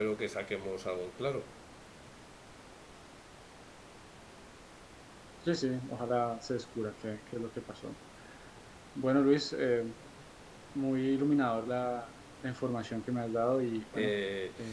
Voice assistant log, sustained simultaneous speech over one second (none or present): none